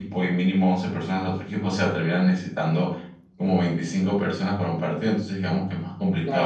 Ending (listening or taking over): taking over